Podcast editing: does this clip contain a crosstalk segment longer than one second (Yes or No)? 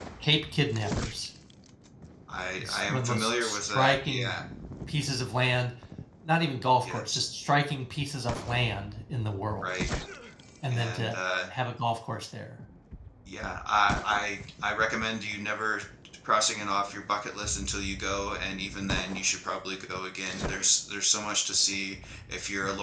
Yes